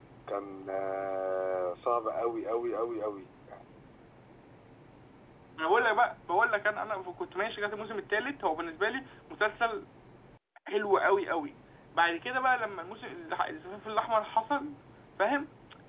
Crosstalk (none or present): none